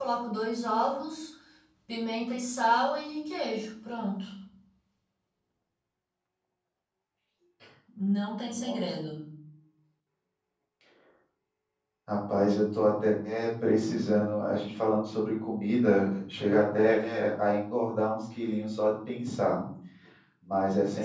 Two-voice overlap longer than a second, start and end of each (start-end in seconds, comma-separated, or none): none